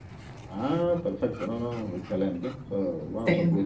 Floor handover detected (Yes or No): No